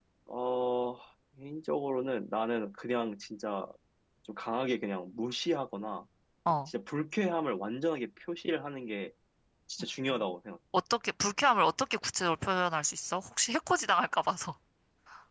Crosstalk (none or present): none